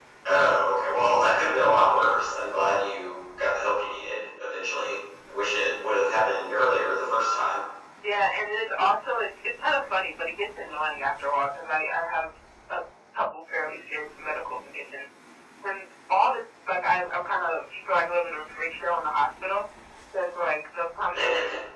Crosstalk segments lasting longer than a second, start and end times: none

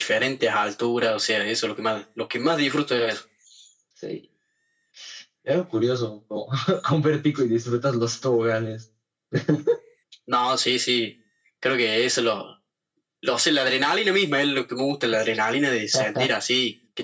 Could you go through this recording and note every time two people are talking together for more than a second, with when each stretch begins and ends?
none

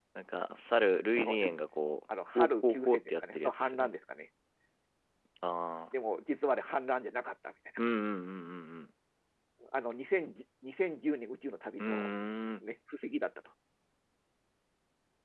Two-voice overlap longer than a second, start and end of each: 2.4-3.9

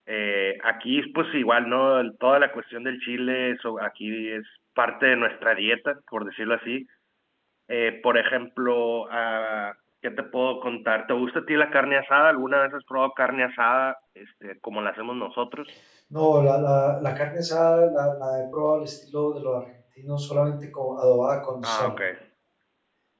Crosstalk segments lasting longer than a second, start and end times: none

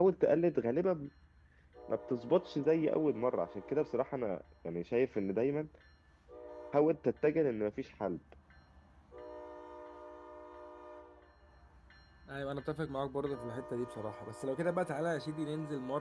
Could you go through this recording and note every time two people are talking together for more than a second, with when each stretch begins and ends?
none

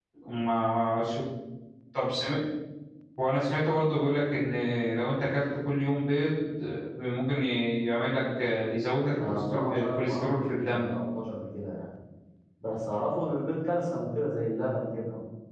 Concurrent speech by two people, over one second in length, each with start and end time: 9.3-10.9

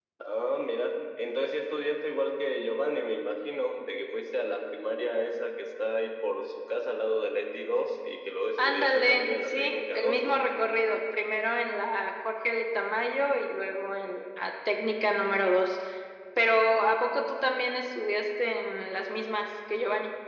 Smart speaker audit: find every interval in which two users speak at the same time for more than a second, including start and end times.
8.6-10.4

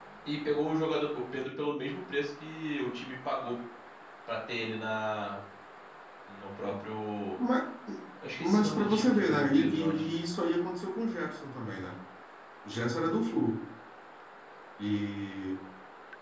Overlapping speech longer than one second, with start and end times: 8.4-10.2

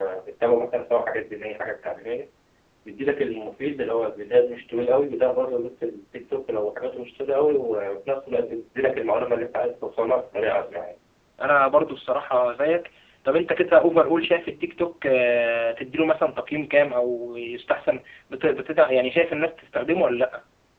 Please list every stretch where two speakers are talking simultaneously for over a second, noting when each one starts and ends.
none

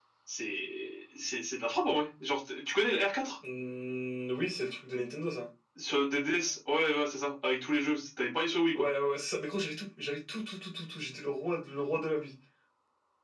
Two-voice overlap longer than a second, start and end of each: none

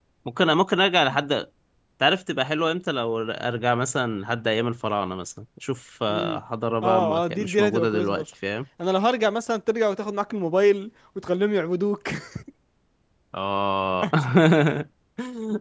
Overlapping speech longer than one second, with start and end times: 6.8-8.2

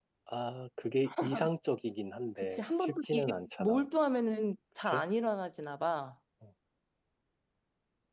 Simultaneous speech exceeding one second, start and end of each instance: 2.4-3.8

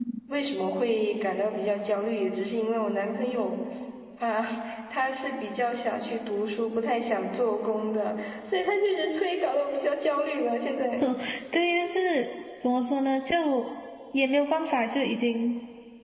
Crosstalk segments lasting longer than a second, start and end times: none

